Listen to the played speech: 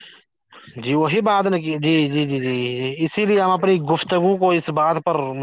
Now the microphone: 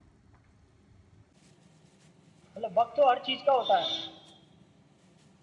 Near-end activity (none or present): present